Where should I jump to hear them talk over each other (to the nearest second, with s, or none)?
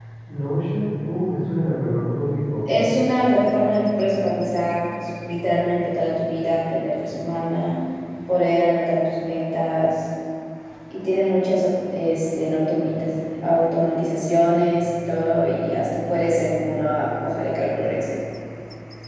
none